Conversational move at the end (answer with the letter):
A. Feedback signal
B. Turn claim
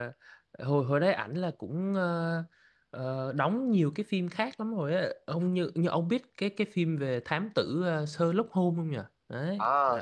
B